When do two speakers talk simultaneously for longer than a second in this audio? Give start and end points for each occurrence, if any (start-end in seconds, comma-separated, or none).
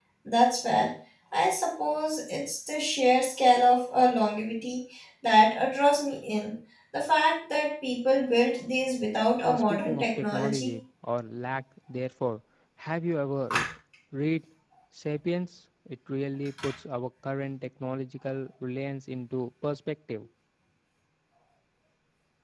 9.4-10.7